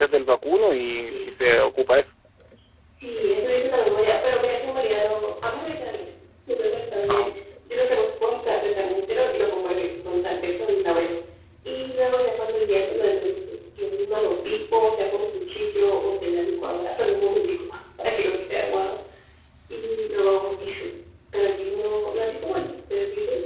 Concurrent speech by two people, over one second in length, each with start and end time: none

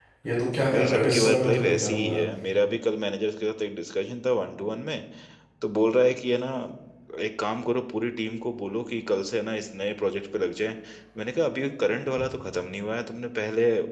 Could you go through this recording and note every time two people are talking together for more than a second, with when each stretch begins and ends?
0.7-2.2

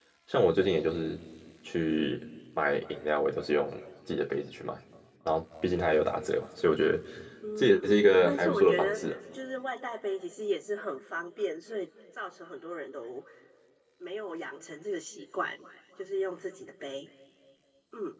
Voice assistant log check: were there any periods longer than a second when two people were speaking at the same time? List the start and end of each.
7.6-9.0

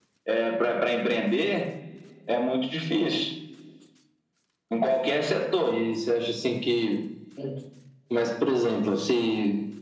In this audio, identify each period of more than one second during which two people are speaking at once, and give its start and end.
none

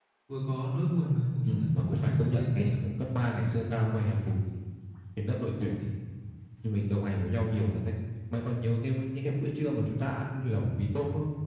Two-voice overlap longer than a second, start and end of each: 1.4-2.8

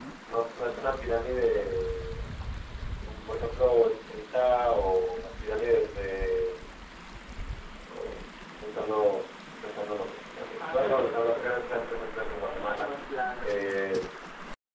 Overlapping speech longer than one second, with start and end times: 10.6-11.9

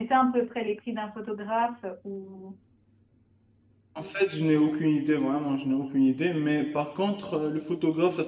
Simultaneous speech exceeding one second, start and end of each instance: none

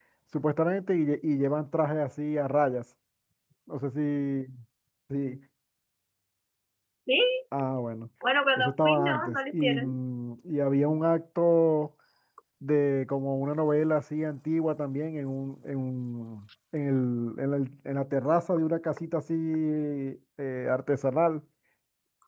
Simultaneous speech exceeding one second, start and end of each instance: 8.6-9.9

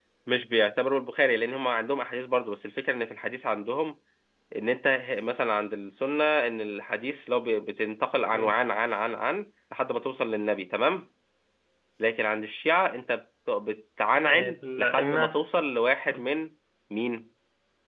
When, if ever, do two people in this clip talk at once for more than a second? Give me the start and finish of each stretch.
14.2-15.4

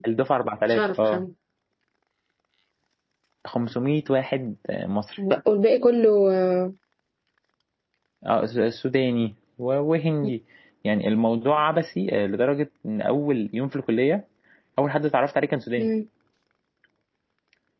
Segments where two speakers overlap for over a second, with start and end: none

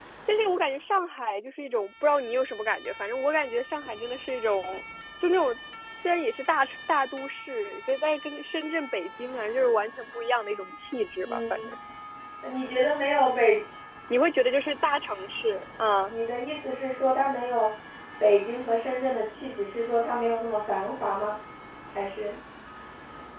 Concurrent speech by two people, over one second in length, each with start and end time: none

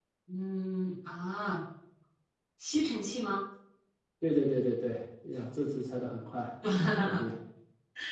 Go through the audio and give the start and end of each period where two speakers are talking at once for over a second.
none

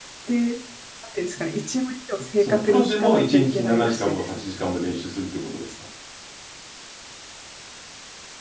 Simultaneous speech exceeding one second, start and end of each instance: 2.4-4.5

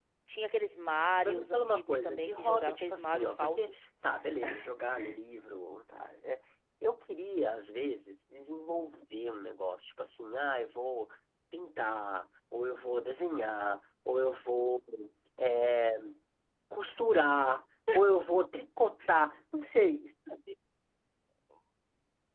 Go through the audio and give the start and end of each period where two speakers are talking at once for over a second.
1.2-3.7

